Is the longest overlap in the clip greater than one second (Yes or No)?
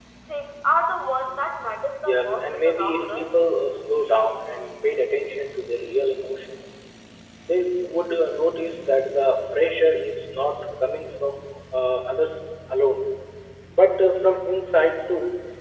Yes